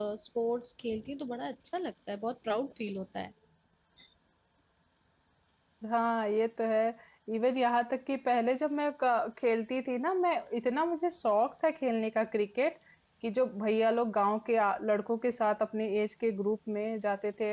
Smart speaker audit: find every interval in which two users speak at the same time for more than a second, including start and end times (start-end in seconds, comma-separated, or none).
none